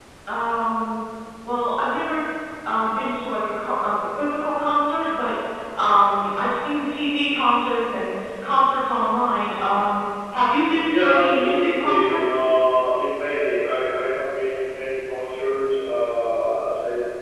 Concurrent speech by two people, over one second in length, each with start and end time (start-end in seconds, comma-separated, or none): 10.9-12.2